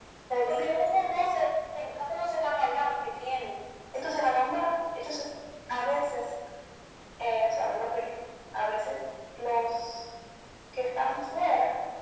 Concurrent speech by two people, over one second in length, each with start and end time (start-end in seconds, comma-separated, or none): none